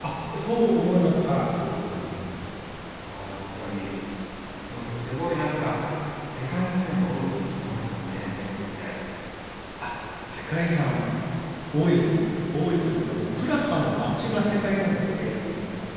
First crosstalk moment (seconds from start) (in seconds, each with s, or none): none